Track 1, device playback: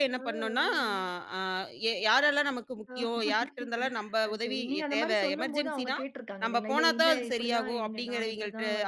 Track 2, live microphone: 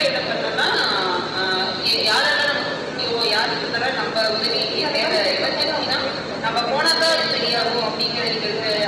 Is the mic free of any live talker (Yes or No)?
Yes